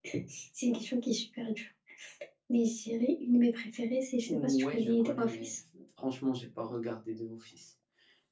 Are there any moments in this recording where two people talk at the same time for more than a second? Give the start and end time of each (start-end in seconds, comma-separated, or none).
4.3-5.5